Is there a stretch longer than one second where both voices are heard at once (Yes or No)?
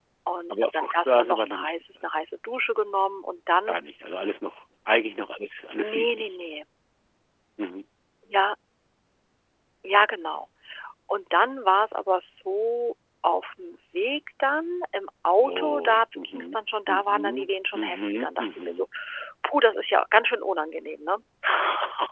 Yes